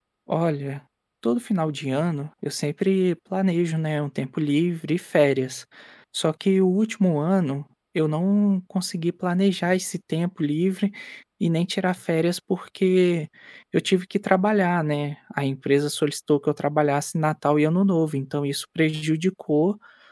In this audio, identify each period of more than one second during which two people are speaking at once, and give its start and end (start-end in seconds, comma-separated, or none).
none